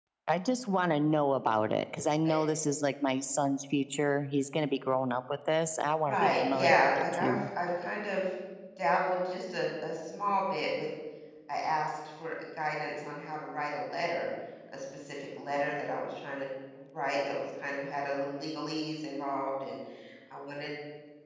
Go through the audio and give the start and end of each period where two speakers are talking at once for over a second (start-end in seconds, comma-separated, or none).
6.1-7.4